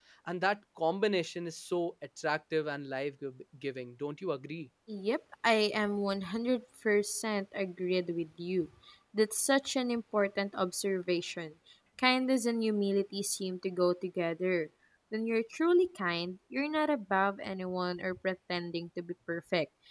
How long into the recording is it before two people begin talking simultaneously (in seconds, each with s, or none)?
none